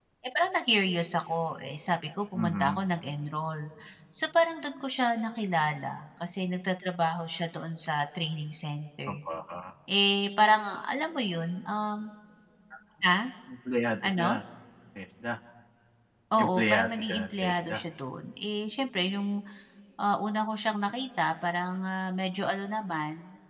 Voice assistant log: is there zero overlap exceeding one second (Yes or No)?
No